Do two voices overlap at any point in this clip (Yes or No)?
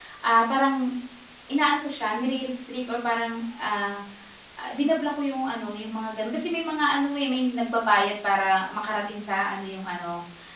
No